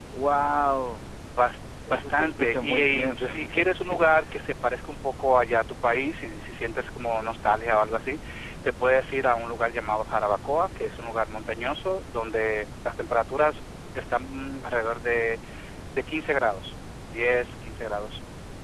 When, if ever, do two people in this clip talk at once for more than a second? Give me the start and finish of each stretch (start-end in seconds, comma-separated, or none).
1.9-4.1